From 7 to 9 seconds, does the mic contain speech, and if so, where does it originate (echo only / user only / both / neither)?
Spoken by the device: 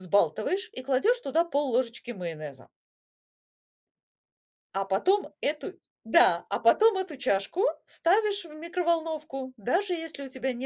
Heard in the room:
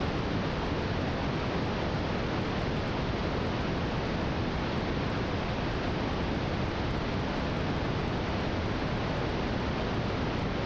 neither